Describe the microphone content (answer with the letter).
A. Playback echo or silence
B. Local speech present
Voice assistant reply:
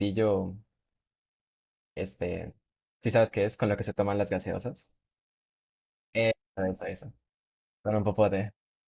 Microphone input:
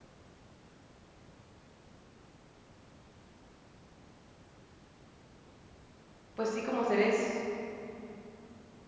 B